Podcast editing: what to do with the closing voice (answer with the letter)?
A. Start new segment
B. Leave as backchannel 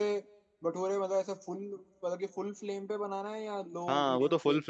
A